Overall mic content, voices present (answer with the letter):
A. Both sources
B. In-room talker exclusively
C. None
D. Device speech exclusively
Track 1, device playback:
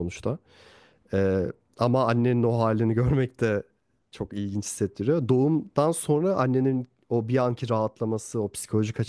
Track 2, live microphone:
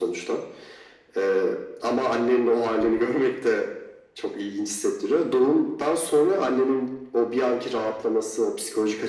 D